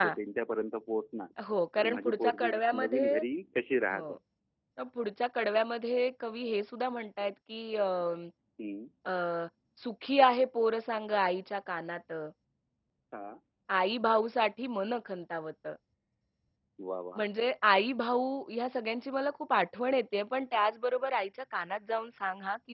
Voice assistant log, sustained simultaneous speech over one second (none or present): present